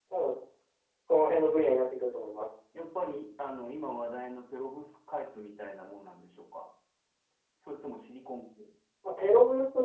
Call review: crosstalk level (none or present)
none